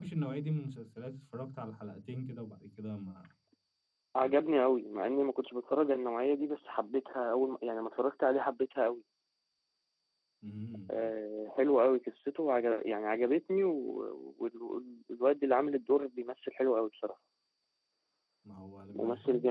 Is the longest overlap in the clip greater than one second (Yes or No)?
No